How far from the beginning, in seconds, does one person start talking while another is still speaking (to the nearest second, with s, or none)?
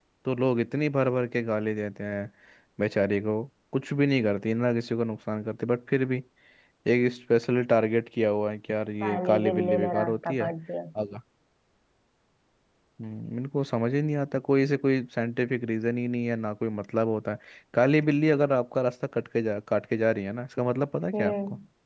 9 s